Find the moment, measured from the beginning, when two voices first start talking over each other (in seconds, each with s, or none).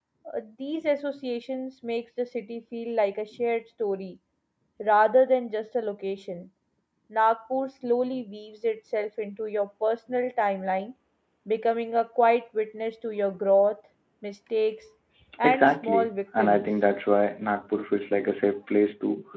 15.4 s